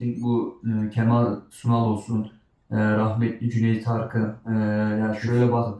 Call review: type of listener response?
listening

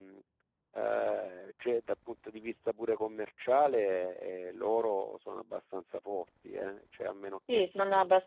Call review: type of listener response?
taking over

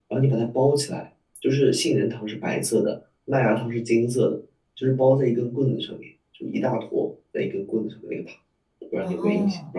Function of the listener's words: taking over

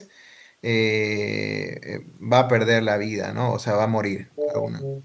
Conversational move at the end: listening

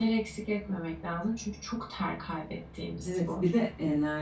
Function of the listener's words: taking over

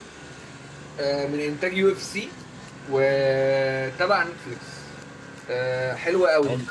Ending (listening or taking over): listening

